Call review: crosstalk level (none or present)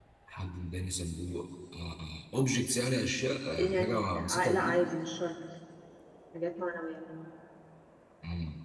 present